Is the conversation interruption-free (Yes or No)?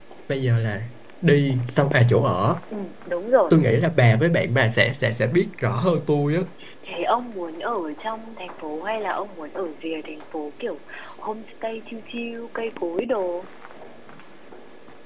Yes